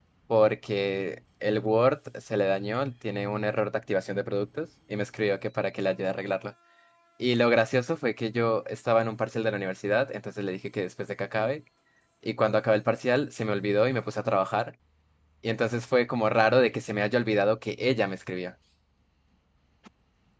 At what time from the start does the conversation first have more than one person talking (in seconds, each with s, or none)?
none